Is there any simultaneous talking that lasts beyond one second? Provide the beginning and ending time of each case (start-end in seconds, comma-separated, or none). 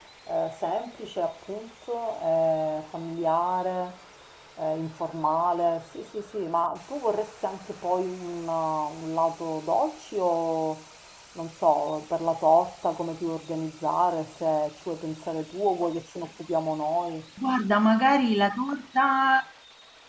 none